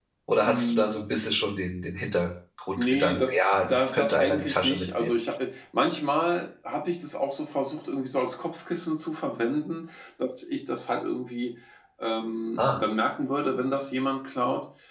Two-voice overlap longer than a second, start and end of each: 2.8-5.2

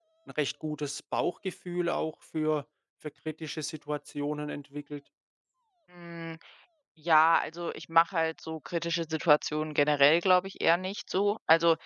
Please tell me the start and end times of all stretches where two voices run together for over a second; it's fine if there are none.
none

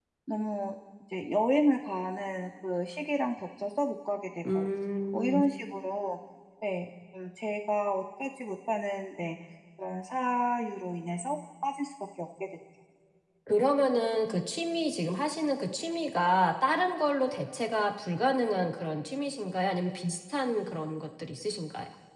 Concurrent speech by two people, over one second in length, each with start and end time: none

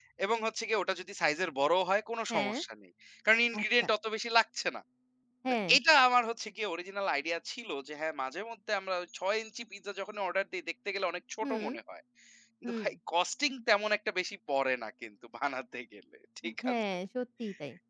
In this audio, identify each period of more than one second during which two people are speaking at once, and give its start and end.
none

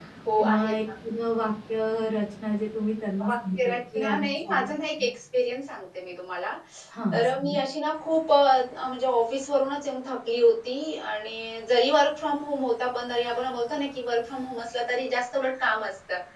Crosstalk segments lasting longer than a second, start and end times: 3.3-4.7

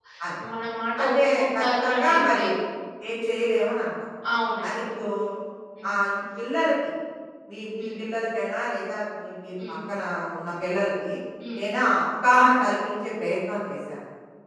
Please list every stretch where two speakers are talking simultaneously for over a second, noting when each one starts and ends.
1.0-2.4

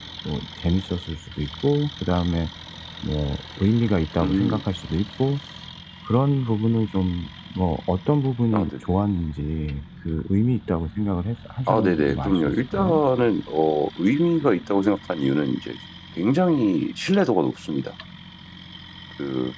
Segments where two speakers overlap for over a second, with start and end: 11.7-13.0

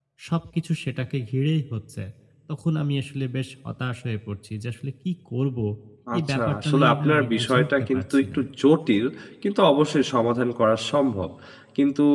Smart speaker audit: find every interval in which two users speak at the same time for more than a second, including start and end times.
6.2-8.4

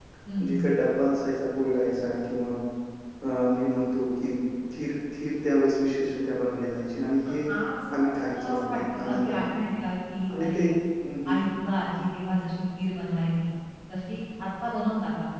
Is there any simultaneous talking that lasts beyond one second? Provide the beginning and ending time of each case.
8.2-9.4

